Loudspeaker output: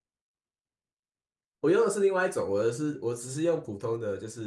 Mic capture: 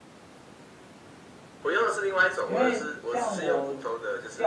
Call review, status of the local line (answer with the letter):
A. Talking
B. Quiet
A